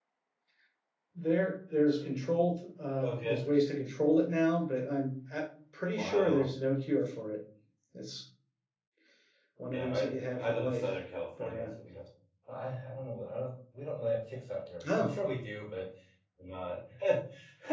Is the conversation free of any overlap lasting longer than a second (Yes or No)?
Yes